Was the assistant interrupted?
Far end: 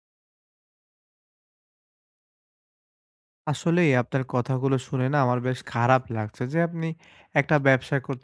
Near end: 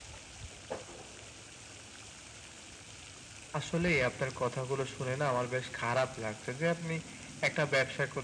No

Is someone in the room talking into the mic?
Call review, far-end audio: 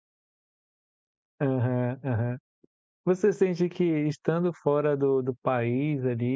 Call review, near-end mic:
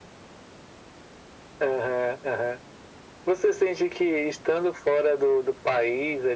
No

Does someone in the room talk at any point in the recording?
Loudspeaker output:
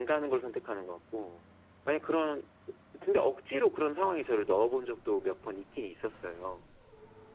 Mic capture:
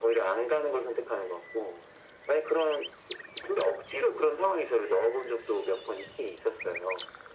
No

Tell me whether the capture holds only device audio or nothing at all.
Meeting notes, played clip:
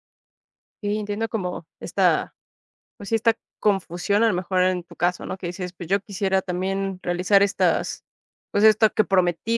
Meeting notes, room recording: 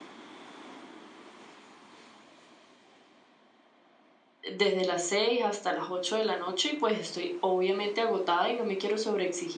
No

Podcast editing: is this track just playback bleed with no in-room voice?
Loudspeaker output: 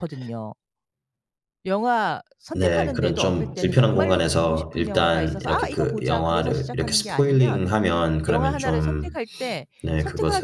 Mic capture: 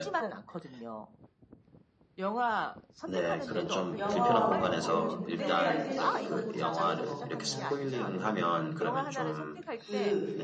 No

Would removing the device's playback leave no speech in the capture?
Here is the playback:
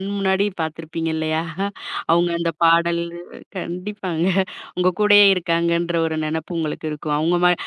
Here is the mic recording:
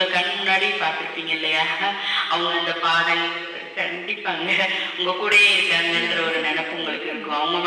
No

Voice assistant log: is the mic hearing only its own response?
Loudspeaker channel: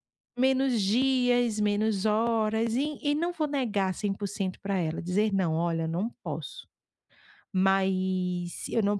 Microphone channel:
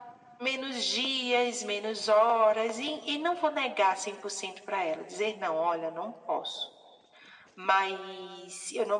Yes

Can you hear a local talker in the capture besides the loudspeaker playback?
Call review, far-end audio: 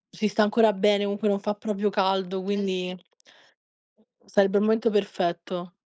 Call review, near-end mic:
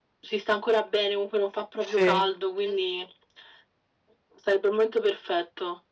Yes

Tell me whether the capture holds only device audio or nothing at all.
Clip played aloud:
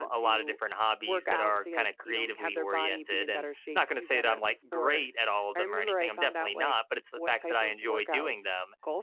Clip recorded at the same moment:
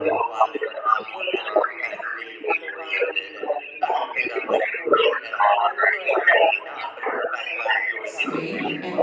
No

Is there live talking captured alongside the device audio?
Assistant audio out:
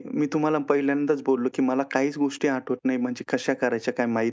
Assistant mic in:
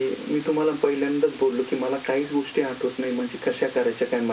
No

